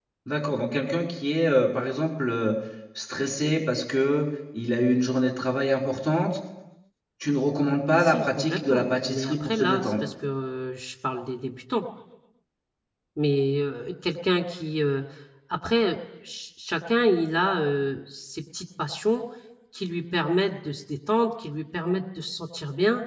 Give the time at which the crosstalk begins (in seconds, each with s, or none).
7.9 s